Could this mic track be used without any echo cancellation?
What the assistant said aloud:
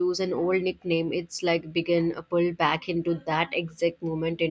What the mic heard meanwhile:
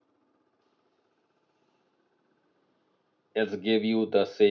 Yes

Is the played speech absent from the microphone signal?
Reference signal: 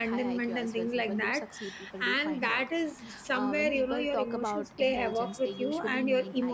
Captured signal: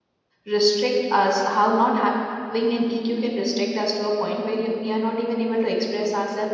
Yes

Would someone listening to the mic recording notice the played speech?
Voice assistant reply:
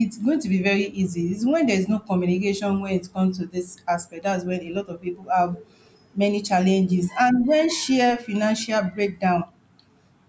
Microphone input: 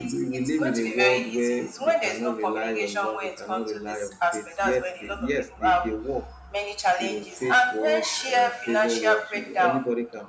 Yes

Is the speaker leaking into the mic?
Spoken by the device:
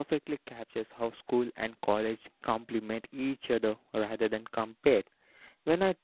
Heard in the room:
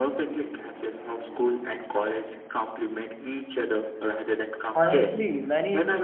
Yes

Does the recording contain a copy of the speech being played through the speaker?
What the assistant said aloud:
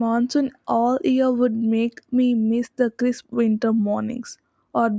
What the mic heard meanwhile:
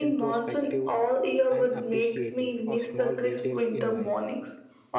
Yes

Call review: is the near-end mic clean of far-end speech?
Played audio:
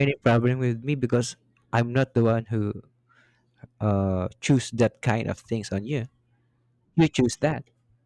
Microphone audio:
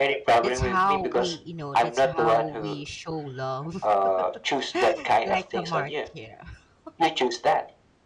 No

